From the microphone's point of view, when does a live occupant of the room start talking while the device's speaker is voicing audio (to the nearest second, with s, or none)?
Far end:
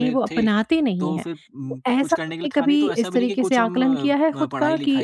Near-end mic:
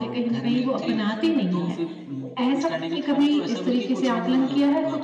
none